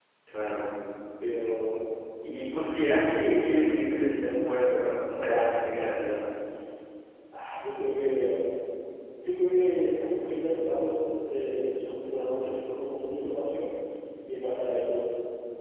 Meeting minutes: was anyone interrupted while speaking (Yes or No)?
No